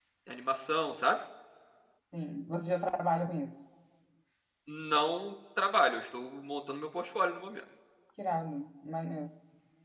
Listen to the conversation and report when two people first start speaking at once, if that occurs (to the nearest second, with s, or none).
none